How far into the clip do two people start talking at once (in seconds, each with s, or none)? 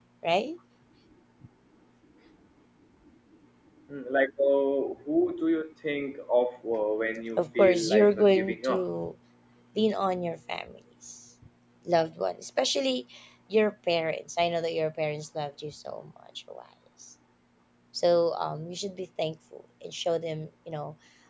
7.4 s